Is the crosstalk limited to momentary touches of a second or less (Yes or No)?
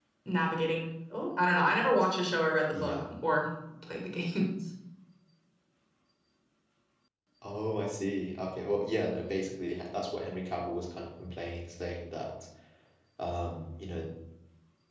Yes